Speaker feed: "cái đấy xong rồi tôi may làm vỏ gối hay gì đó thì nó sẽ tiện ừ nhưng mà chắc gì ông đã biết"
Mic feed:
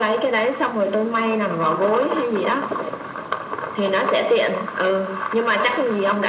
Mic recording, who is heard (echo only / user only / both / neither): echo only